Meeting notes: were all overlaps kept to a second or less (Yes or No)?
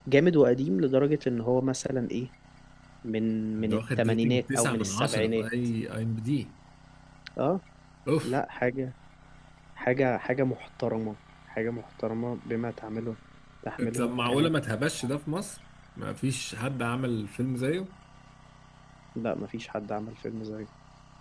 No